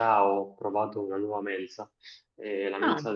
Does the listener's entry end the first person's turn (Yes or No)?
No